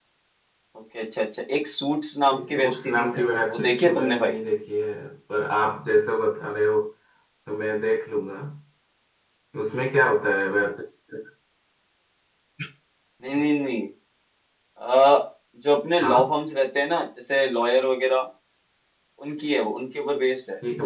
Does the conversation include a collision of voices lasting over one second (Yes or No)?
Yes